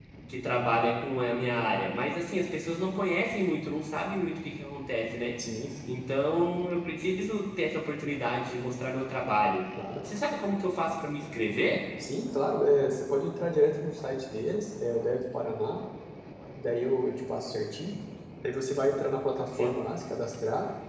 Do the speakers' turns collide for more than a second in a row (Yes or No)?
No